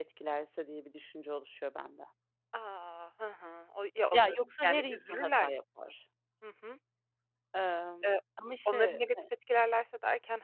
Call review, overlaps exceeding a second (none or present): present